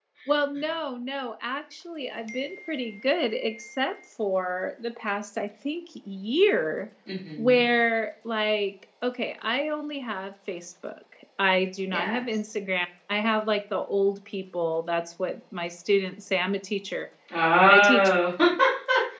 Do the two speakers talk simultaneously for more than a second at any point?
No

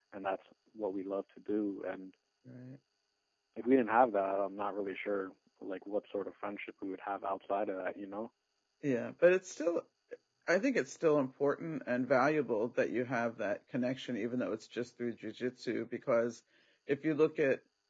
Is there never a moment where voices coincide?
Yes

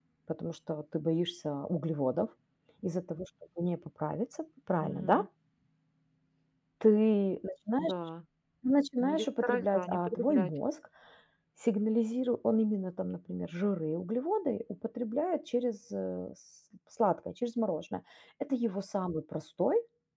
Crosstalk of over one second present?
Yes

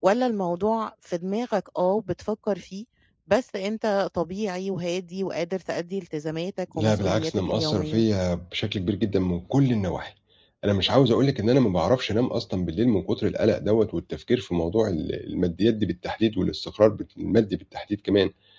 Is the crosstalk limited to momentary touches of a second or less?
No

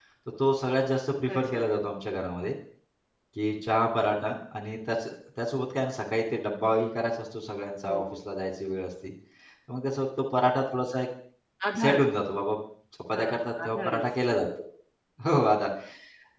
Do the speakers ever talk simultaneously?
Yes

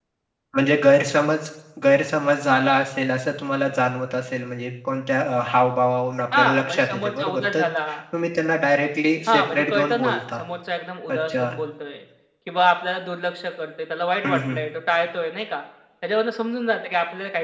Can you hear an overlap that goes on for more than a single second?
Yes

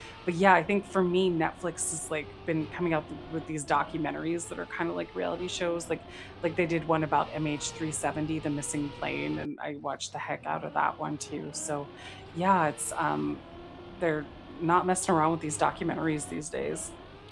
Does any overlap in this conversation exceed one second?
No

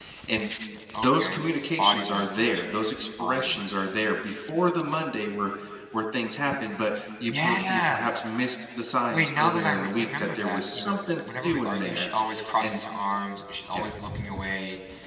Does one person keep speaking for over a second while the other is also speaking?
Yes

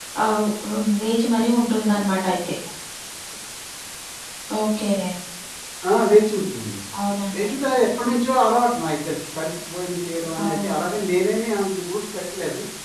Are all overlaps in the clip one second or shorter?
Yes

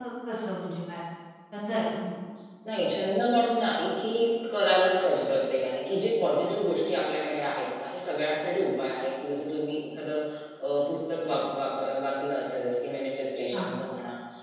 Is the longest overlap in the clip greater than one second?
No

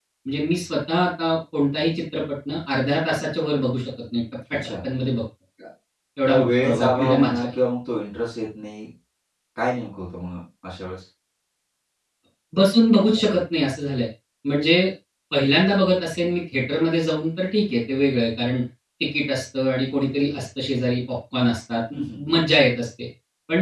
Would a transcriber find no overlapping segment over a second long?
No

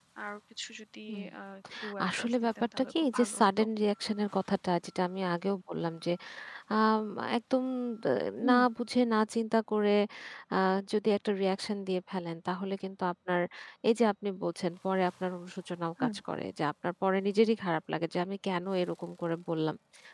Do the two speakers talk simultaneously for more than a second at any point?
Yes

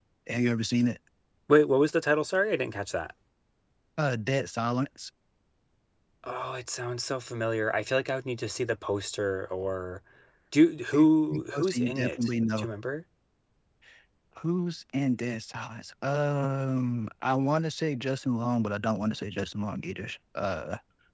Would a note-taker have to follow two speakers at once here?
Yes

